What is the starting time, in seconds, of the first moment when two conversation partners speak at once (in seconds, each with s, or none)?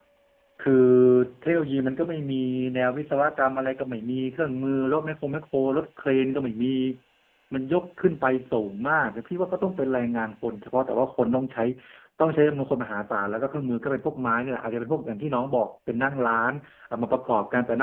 none